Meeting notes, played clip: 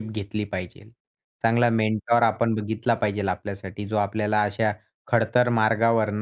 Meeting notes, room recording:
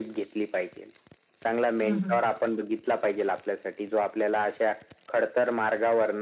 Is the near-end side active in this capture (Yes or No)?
Yes